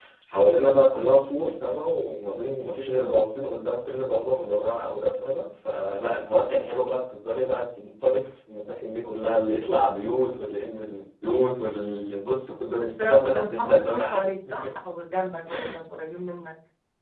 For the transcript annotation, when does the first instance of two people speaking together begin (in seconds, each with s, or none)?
12.8 s